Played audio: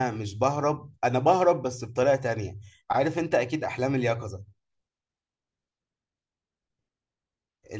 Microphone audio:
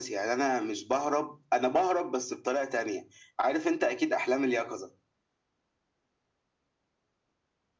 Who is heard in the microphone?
echo only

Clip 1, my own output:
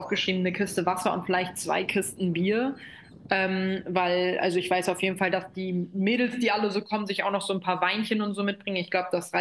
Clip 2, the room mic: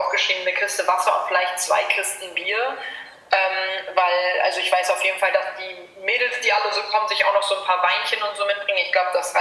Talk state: echo only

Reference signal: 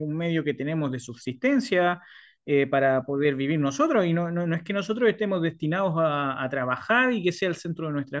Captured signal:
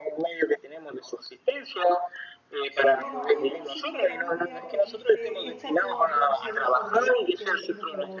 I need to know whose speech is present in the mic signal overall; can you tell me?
both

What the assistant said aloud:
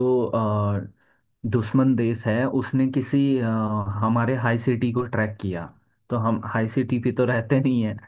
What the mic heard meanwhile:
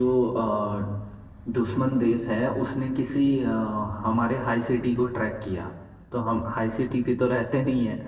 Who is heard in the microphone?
echo only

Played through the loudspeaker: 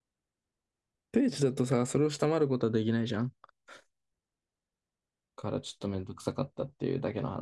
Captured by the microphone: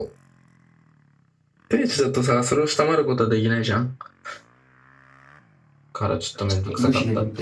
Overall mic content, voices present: both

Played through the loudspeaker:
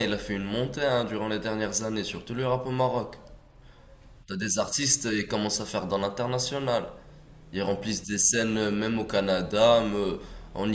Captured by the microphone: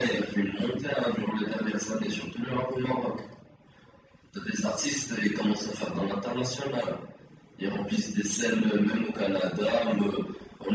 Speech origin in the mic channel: echo only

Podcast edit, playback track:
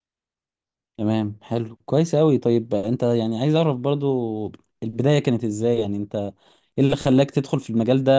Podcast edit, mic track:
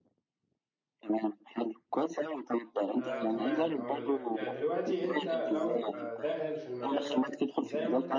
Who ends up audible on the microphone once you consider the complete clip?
both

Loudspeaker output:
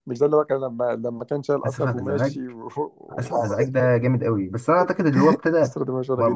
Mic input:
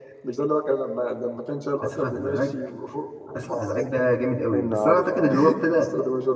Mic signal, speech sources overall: both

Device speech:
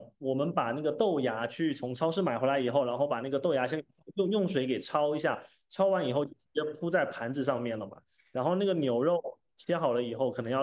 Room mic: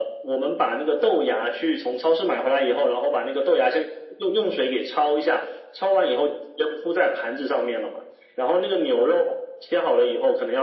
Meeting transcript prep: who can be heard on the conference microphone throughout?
echo only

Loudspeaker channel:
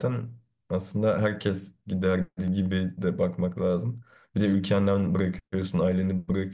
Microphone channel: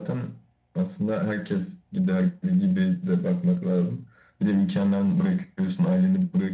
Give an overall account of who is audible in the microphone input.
echo only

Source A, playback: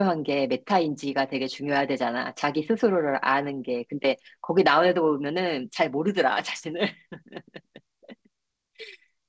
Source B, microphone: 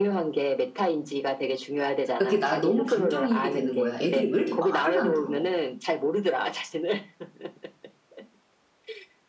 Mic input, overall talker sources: both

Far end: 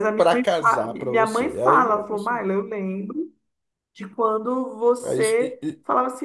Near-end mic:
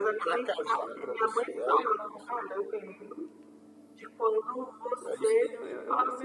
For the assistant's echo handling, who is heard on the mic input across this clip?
both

